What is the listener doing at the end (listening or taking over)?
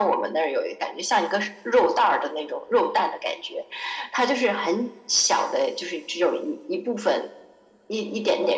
taking over